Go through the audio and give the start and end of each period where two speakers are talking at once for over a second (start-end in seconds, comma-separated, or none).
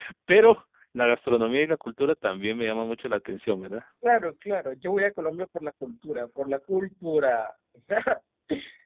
none